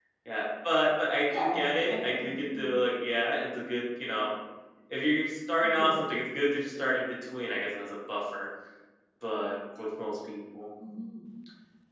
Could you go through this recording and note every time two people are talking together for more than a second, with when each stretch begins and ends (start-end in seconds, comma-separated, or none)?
1.3-2.8